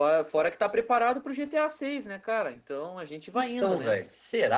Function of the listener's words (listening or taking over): taking over